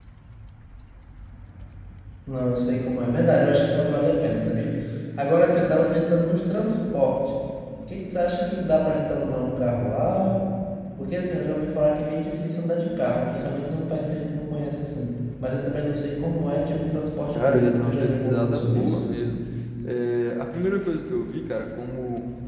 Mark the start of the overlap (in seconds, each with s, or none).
17.3 s